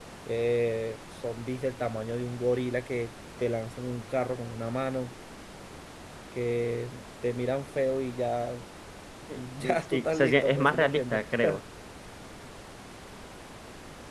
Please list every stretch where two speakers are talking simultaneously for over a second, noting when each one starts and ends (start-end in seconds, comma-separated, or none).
9.3-11.2